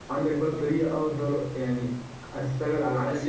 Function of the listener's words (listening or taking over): taking over